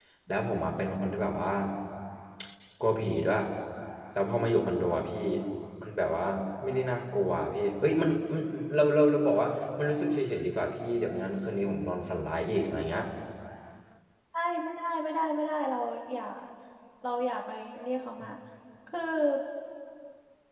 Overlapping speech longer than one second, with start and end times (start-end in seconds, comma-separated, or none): none